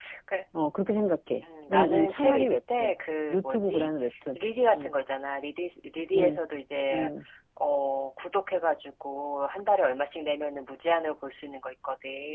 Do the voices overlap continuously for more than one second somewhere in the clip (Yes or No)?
Yes